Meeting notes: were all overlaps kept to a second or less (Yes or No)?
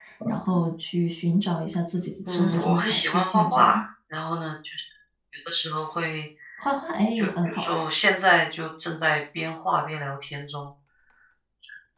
No